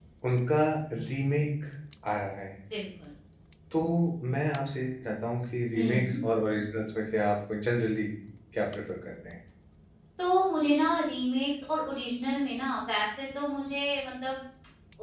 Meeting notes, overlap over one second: none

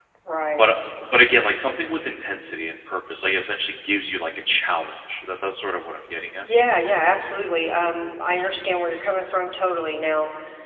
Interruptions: none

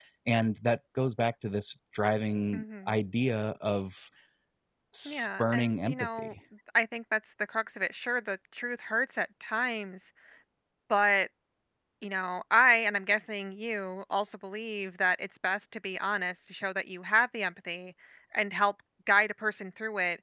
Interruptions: present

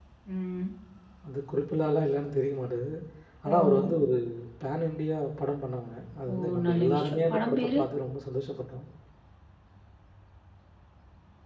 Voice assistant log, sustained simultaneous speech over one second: present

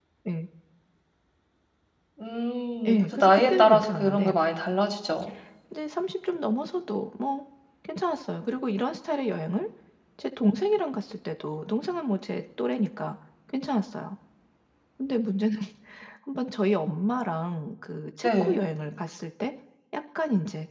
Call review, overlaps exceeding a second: present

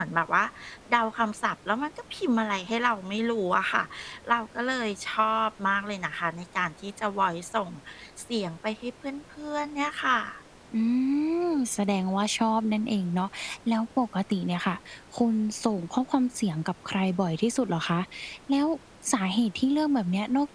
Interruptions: none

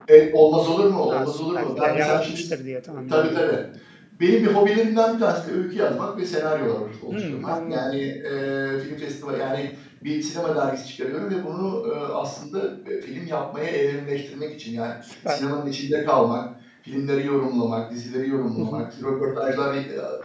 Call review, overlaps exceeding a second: present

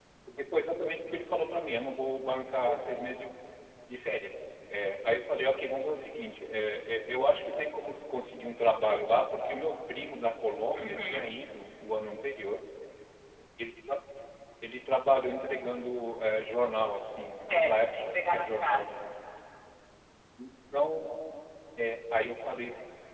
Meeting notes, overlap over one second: present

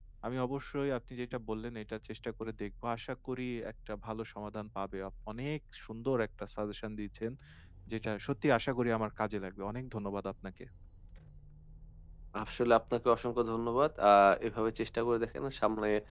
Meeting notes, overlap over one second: none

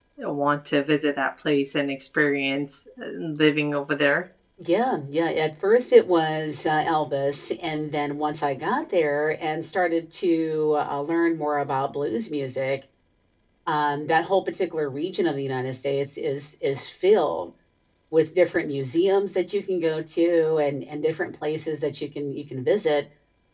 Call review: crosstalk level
none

